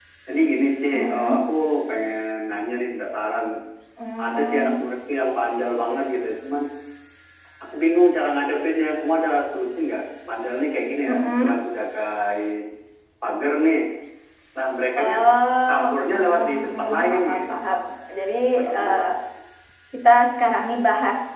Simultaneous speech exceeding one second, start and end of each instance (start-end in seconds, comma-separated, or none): 15.7-17.6